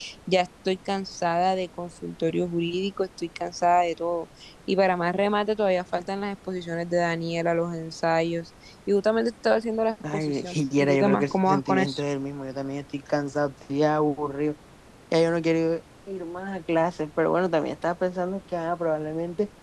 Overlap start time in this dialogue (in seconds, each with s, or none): 10.0 s